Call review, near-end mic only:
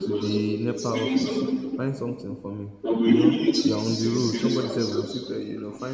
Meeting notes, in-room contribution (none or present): present